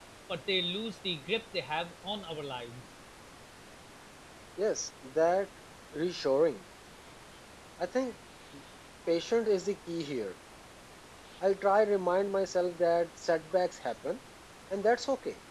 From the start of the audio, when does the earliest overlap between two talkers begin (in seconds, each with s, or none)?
none